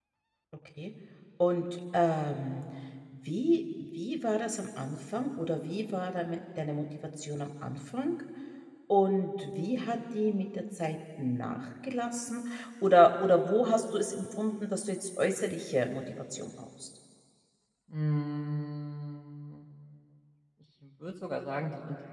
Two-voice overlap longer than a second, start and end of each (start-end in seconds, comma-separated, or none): none